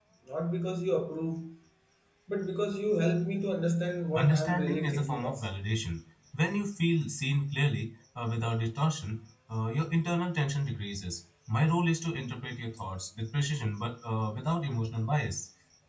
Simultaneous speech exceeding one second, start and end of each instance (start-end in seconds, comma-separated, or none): 4.2-5.4